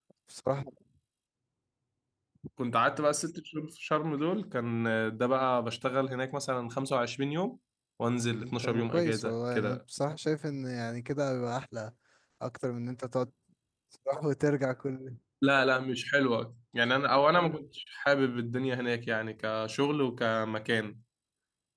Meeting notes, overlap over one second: present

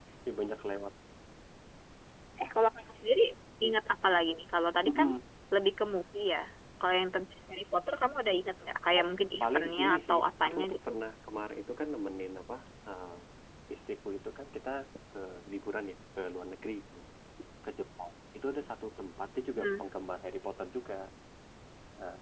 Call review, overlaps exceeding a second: present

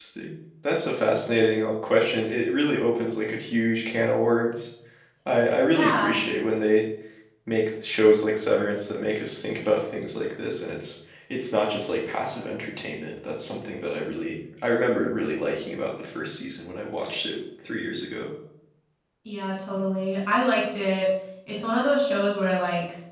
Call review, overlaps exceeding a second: none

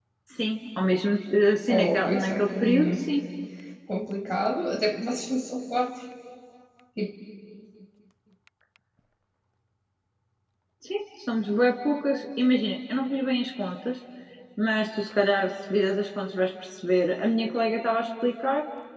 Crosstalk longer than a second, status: present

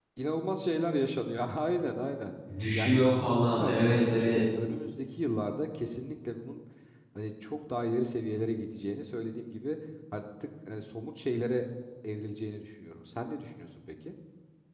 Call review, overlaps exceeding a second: present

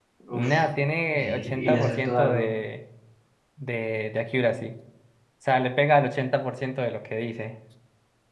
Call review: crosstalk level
present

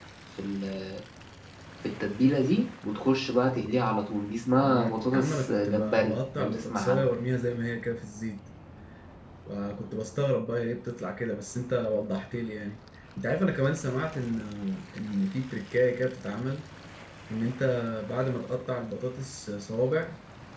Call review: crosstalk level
present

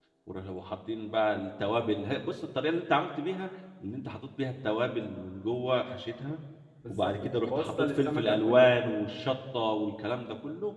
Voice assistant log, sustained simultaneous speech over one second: present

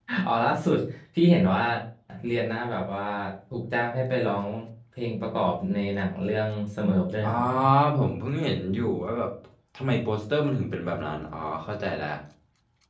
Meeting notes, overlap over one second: none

